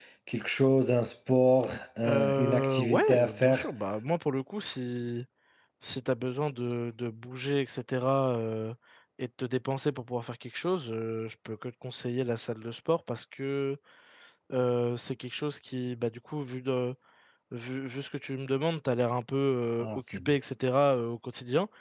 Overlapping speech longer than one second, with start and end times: 2.0-3.7

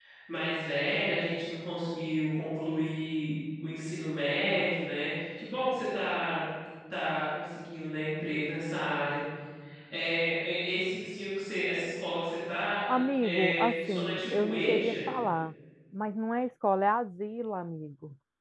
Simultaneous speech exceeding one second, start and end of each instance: 12.9-15.0

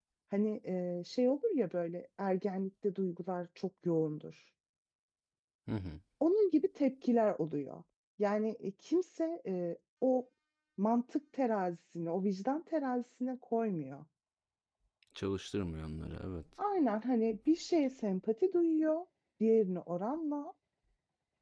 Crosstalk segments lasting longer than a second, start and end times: none

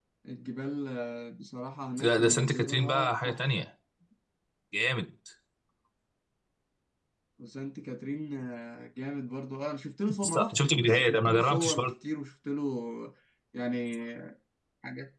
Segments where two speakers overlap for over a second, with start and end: 2.0-3.6, 10.2-11.9

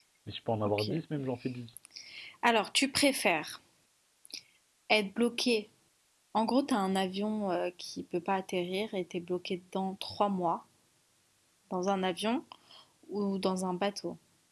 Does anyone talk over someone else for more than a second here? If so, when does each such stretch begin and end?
none

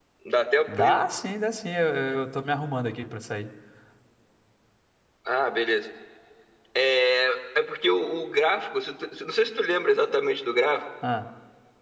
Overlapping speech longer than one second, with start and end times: none

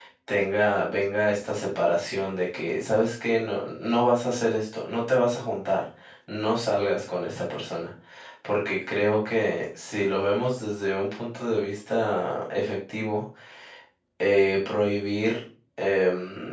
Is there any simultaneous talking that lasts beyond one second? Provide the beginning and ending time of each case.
none

